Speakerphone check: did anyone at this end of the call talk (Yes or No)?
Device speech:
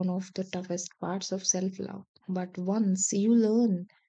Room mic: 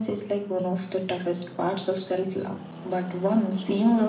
No